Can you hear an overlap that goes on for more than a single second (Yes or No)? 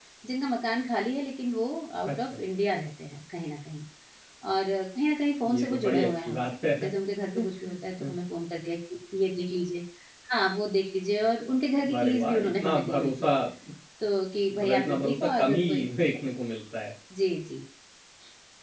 Yes